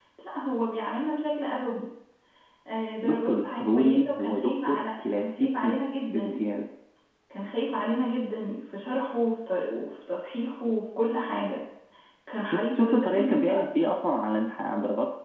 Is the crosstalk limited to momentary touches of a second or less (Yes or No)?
No